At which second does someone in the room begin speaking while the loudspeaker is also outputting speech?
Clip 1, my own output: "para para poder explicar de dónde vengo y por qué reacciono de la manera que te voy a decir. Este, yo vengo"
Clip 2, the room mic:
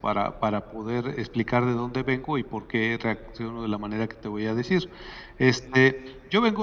none

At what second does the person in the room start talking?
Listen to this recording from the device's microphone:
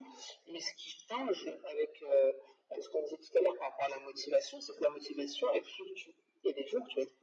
none

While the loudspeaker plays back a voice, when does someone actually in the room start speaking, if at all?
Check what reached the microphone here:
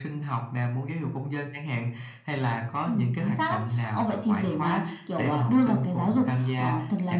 none

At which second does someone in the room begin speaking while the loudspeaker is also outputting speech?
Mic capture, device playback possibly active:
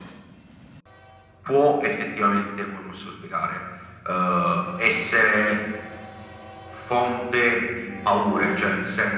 none

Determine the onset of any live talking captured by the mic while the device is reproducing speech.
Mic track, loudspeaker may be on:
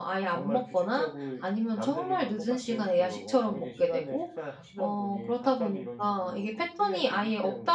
none

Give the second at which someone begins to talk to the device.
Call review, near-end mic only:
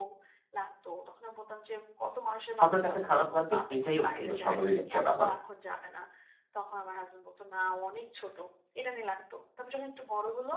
2.6 s

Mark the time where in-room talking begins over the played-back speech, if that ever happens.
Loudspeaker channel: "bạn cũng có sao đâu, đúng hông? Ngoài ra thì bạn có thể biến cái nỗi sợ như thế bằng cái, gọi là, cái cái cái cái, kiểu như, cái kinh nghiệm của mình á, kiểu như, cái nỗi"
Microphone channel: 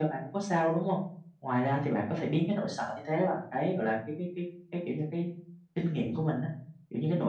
none

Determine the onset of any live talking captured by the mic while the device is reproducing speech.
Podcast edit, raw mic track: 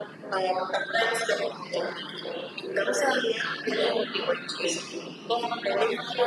none

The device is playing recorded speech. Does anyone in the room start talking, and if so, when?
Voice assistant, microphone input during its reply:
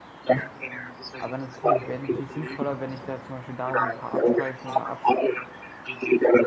1.2 s

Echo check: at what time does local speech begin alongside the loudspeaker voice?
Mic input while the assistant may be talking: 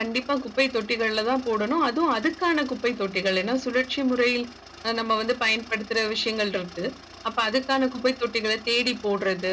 none

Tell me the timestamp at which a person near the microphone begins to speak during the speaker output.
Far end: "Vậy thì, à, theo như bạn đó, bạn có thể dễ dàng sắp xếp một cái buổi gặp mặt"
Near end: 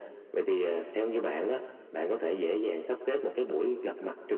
none

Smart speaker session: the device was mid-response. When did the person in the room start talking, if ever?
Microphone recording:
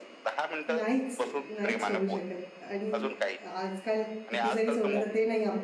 0.8 s

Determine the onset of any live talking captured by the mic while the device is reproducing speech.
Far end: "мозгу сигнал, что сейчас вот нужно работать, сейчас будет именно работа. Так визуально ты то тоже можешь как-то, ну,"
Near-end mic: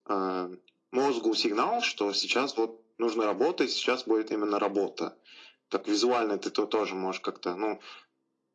none

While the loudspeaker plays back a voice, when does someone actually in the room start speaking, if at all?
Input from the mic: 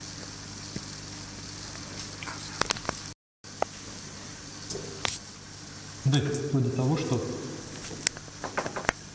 6.0 s

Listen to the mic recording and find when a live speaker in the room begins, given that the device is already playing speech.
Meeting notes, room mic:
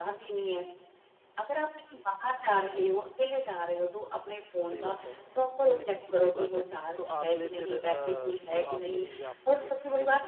4.7 s

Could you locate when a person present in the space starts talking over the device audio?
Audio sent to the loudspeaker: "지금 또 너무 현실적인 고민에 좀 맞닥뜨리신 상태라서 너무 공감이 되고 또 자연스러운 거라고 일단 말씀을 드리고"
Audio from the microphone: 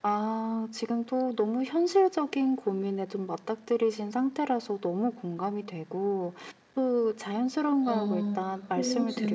7.8 s

